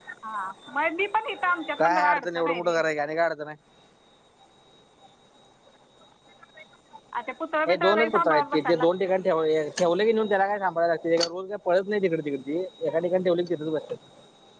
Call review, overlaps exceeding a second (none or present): present